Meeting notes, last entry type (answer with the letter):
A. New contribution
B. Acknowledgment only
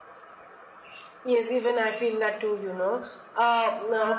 B